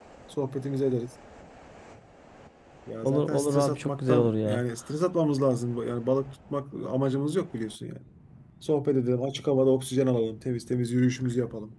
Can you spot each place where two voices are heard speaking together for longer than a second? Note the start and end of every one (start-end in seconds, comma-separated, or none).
3.0-4.6